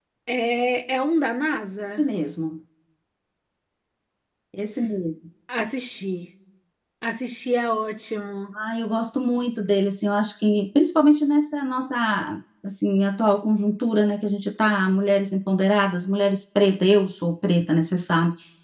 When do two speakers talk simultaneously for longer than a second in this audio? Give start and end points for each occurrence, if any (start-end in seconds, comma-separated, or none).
none